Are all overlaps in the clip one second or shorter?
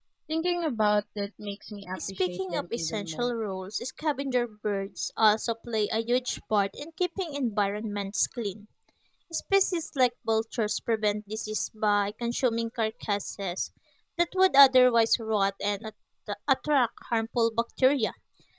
No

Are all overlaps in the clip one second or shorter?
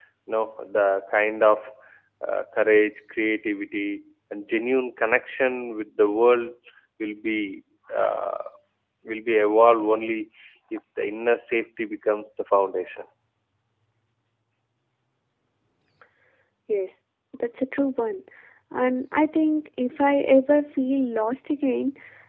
Yes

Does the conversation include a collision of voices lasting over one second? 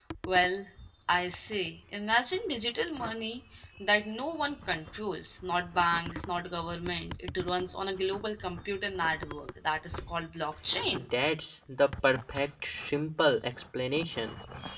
No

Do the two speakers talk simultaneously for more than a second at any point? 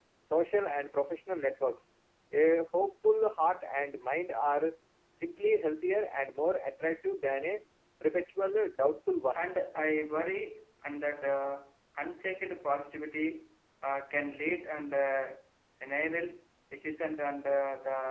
No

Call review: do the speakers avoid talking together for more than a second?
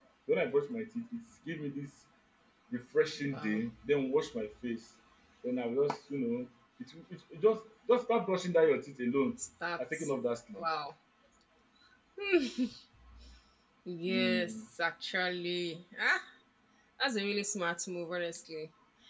Yes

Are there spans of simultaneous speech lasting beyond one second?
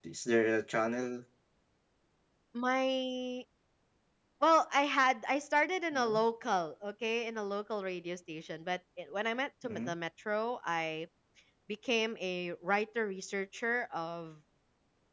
No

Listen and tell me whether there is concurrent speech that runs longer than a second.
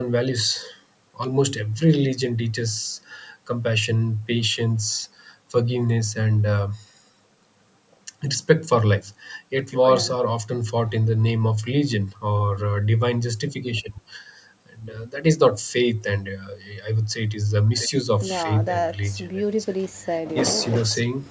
Yes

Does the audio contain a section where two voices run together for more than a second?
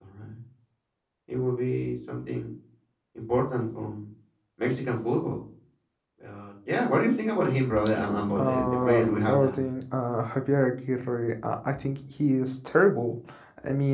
Yes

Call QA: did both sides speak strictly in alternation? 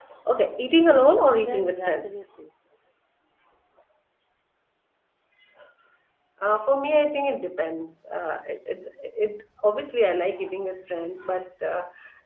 No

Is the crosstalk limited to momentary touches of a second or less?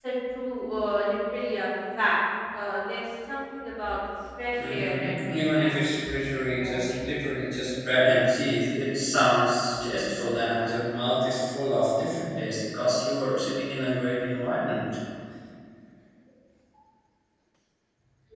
No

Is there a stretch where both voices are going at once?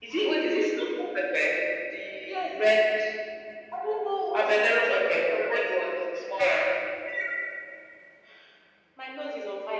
Yes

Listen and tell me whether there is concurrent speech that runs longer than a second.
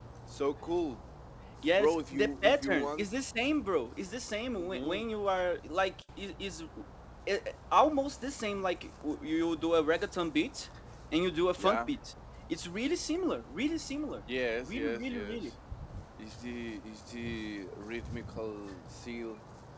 Yes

